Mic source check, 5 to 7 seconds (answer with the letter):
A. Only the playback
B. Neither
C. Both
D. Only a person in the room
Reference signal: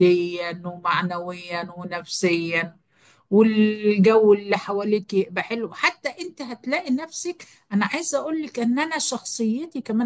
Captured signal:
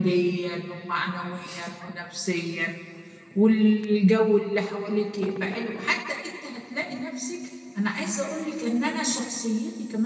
A